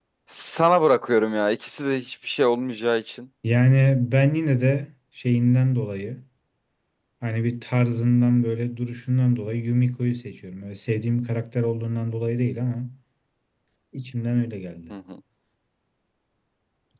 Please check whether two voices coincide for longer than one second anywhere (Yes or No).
No